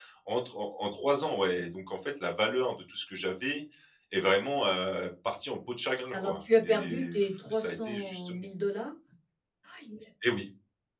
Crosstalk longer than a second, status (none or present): present